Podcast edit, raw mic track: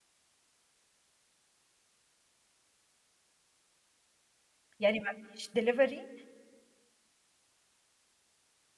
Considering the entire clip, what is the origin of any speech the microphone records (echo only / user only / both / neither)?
user only